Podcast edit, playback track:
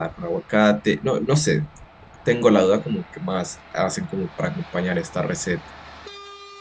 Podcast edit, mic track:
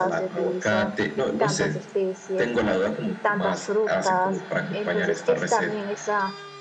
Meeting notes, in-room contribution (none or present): present